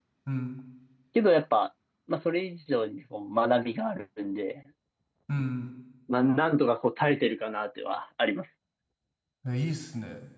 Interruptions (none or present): none